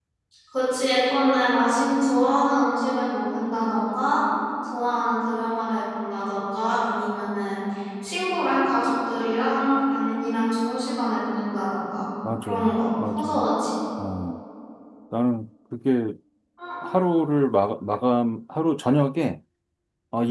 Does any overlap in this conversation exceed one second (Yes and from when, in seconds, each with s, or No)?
No